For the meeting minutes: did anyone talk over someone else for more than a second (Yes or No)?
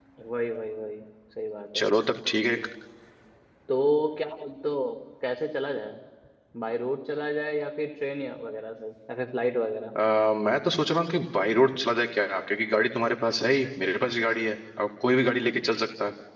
No